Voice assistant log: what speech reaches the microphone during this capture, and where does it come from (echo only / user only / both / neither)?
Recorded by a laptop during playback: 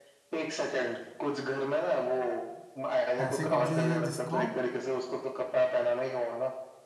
both